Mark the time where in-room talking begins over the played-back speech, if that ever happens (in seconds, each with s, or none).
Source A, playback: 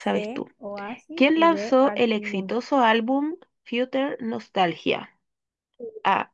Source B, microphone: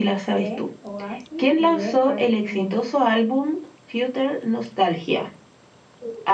none